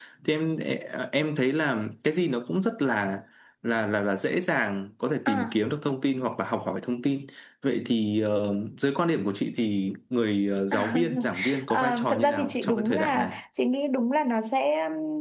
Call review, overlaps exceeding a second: present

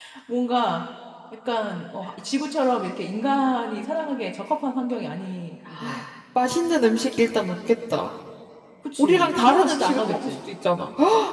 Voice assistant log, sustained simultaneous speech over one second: present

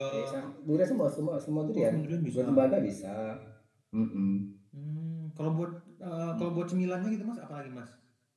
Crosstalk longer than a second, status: none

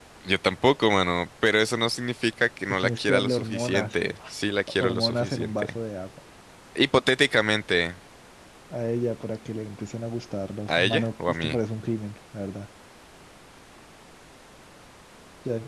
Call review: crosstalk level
present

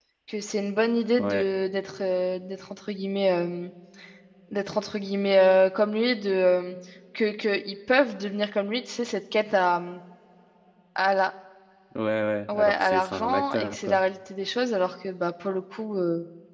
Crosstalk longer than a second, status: present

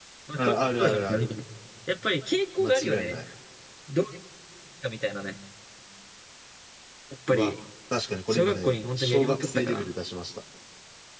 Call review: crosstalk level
present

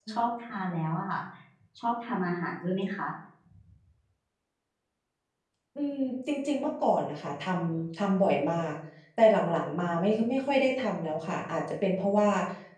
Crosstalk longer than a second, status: none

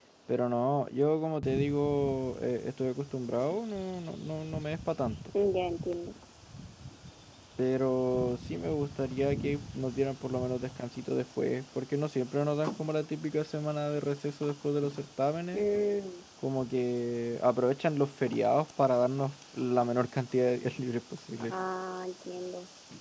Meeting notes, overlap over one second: none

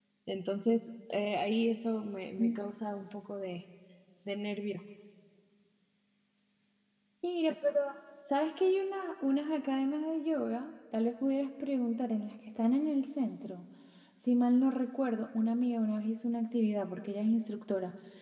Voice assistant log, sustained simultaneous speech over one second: none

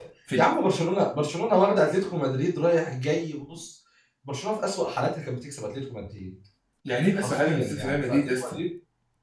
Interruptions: present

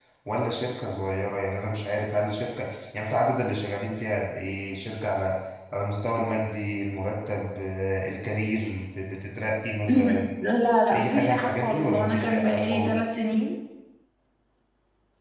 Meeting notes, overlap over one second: present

